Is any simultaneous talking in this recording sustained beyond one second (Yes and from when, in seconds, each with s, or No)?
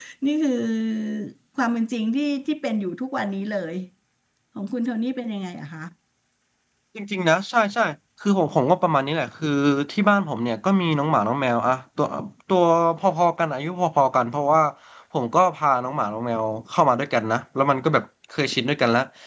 No